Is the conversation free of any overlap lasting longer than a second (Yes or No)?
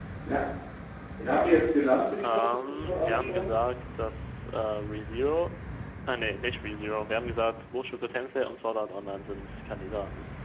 No